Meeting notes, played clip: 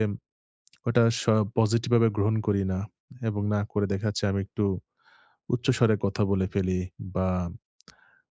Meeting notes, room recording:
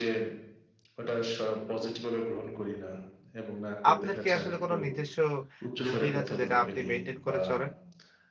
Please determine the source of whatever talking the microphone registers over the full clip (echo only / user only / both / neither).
both